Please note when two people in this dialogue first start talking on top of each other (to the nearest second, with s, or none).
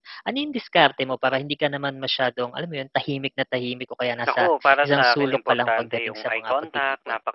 4 s